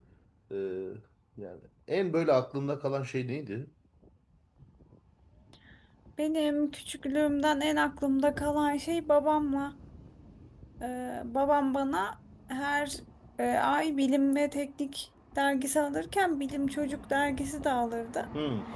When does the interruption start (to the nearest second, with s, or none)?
none